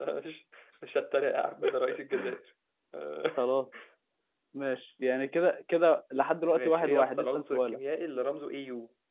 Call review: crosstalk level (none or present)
present